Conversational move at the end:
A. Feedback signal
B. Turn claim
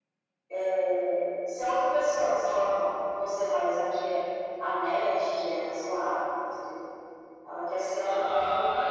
B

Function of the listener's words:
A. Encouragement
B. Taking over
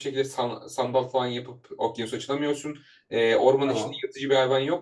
A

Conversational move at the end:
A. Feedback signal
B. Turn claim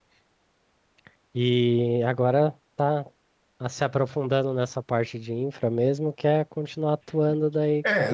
B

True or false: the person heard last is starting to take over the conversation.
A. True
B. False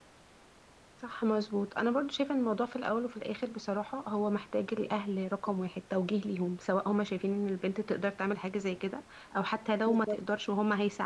B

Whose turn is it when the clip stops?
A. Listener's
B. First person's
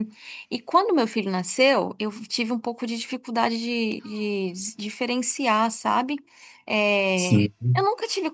B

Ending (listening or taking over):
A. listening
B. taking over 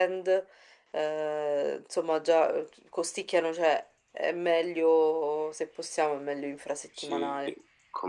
B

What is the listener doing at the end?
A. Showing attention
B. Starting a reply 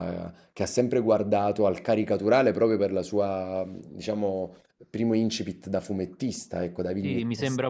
B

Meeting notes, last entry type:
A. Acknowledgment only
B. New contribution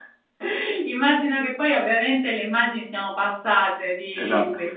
A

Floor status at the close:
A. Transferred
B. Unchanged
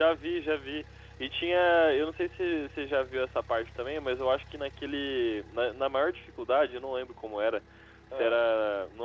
B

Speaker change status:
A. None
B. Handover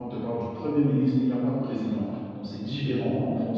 A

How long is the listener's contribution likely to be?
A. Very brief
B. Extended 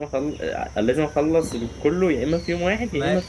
B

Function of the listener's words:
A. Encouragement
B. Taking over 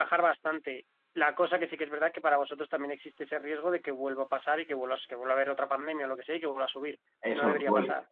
B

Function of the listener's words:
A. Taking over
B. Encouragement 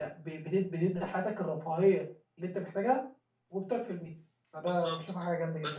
A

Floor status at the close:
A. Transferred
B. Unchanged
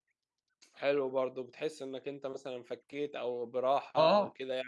A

